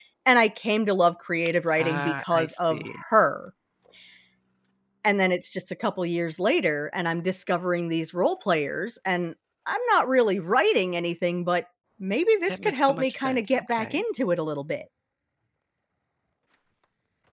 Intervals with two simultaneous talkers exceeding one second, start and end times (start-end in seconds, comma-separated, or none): 1.8-3.0, 12.5-14.0